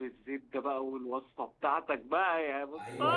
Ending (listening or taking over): taking over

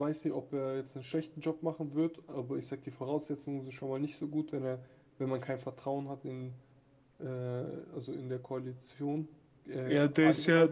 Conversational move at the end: taking over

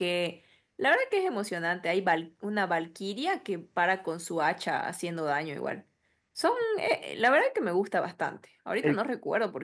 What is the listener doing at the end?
listening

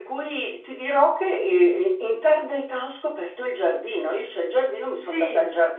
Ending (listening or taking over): listening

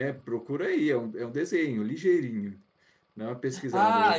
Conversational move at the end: taking over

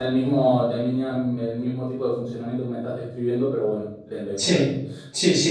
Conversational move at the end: taking over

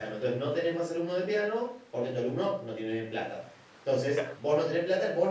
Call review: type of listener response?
listening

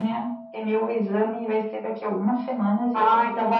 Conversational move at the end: taking over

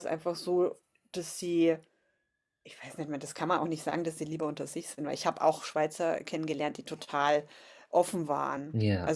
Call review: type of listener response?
listening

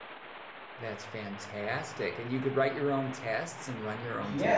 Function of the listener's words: taking over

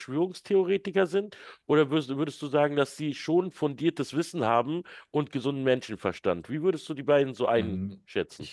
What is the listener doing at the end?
taking over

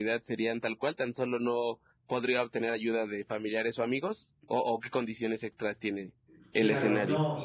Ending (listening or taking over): taking over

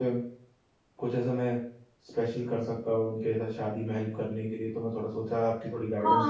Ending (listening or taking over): taking over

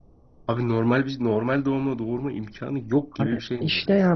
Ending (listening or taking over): taking over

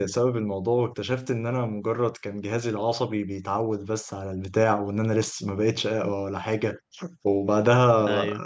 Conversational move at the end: taking over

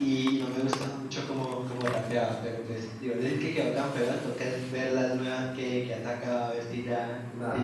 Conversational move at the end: taking over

